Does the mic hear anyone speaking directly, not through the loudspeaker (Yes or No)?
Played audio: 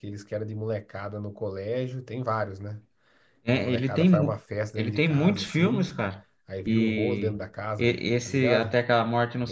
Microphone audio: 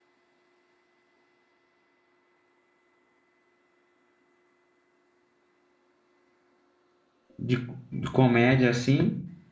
Yes